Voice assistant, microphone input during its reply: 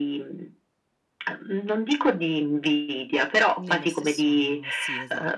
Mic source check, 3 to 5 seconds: both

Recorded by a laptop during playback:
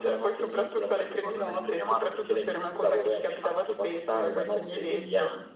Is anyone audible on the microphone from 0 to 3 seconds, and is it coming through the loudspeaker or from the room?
echo only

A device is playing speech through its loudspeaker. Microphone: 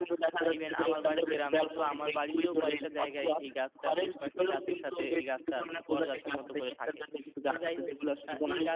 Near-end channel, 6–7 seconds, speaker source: both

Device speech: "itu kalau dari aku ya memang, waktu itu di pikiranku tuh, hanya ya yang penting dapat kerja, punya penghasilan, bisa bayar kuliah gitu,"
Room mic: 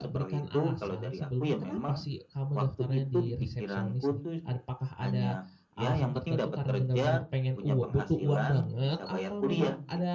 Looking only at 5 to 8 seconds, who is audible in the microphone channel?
both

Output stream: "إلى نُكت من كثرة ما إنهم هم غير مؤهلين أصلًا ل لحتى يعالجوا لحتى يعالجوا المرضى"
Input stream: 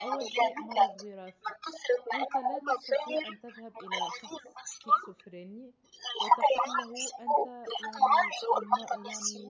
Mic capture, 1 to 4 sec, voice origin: both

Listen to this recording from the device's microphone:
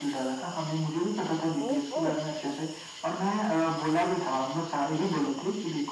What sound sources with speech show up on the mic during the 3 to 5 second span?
echo only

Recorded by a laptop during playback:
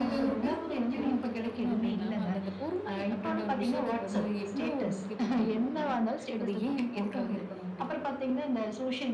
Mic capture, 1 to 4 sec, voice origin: echo only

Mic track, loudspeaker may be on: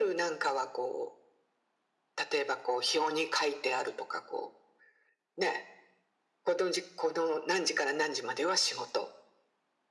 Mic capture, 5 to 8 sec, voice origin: echo only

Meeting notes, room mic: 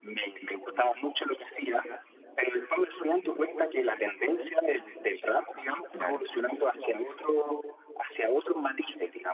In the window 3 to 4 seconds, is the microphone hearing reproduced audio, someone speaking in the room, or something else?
echo only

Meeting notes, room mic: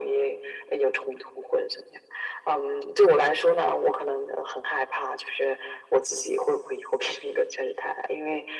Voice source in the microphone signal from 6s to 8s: echo only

